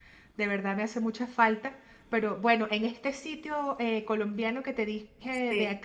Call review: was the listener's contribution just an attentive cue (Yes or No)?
Yes